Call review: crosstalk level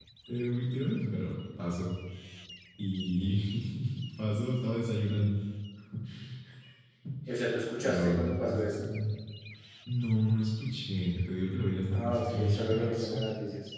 present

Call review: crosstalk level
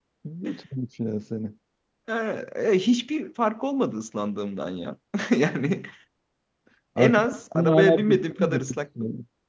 present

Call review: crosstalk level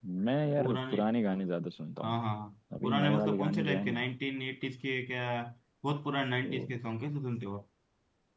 present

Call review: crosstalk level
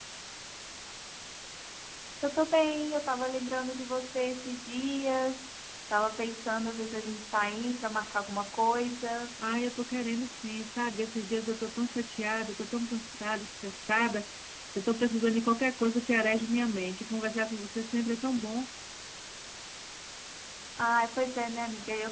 none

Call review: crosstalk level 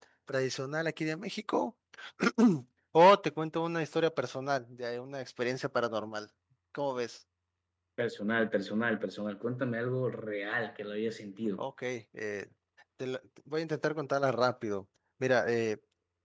none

